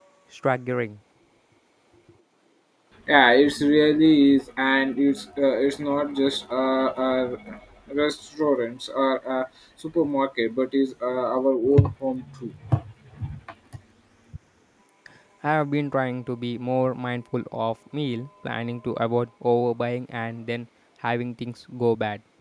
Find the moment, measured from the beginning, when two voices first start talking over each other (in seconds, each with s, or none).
none